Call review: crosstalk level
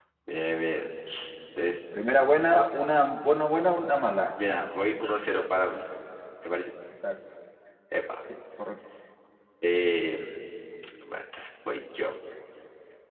none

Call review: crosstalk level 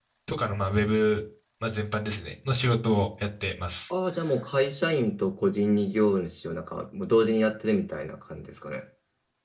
none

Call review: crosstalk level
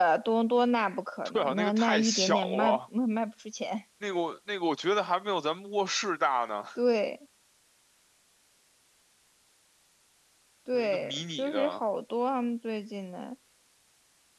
present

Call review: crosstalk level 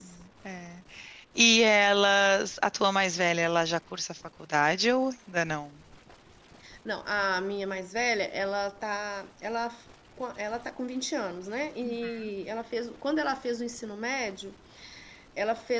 none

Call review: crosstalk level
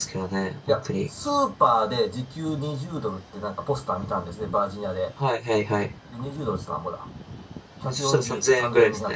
present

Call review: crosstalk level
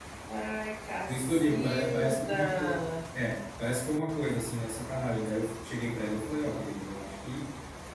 present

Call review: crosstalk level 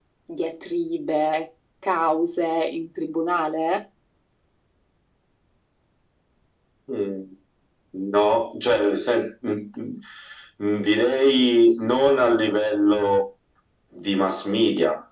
none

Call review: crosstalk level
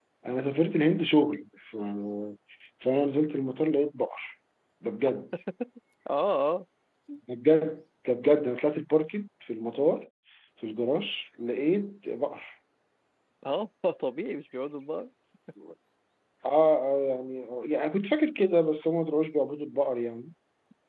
none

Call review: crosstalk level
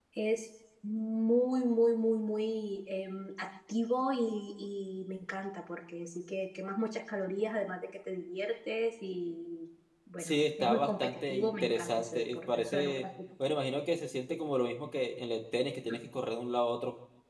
present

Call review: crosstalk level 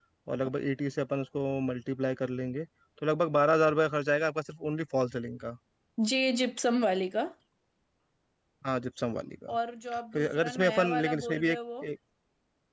present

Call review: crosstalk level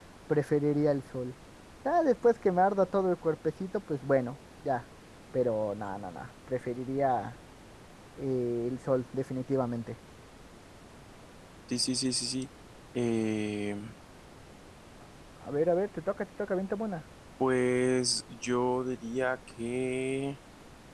none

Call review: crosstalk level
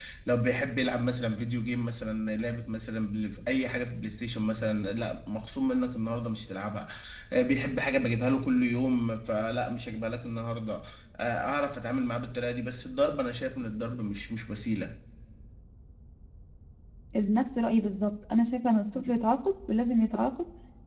none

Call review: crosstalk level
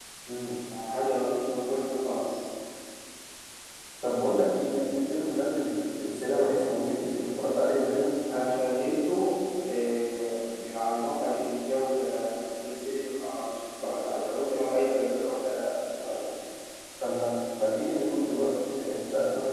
none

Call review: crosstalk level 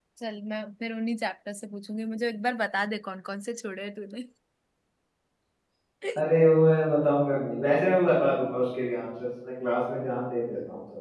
none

